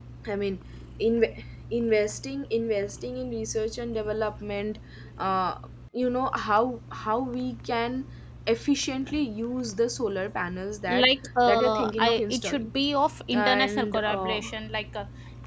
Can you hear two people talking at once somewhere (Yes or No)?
Yes